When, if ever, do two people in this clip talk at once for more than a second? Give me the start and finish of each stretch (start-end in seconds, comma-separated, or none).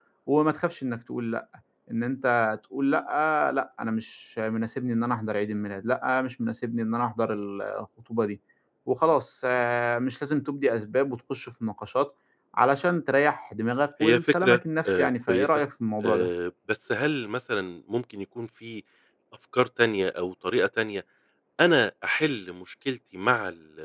14.0-15.6